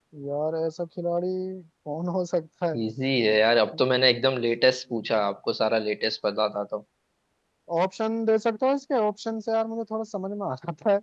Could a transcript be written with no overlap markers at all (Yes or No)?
Yes